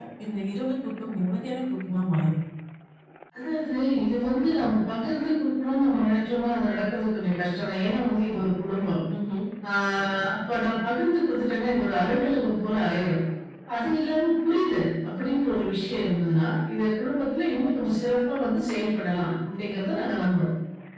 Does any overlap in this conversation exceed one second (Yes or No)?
No